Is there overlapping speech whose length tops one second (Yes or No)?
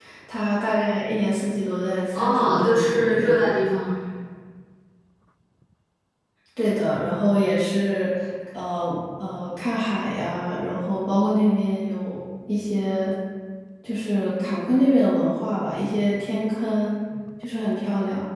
Yes